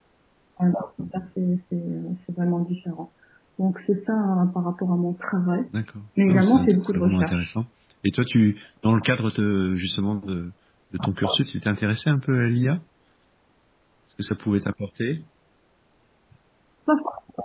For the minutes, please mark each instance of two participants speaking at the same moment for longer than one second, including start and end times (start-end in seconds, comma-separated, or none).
6.3-7.5